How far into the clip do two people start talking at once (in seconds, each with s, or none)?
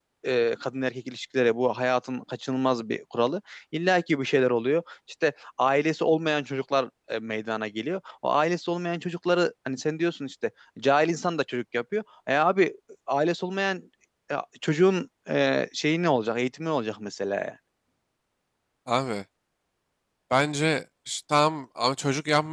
none